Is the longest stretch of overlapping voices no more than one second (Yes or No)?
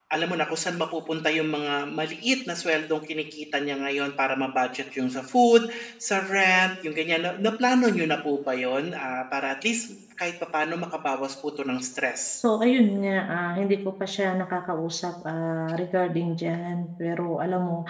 Yes